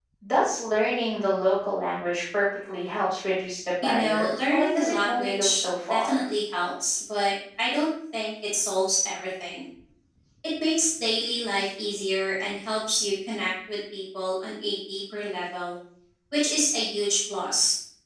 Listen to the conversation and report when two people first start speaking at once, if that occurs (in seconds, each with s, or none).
3.8 s